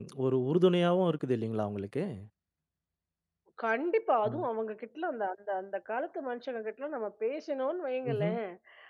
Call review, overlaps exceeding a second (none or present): none